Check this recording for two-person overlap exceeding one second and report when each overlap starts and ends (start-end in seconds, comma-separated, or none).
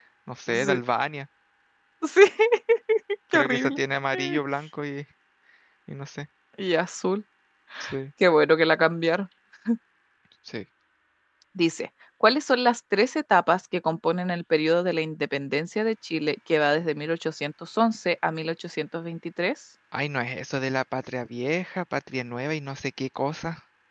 none